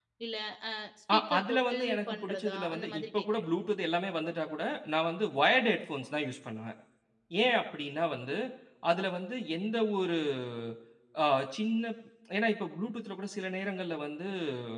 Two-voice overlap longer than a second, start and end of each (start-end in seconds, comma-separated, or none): 1.1-3.4